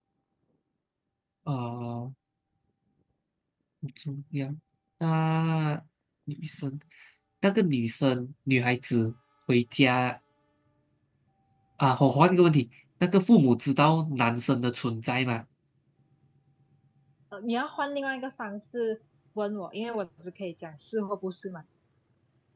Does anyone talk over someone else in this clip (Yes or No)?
No